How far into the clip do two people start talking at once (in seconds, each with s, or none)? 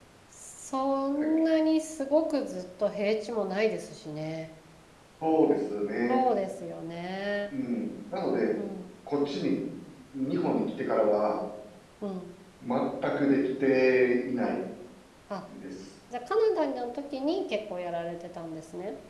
none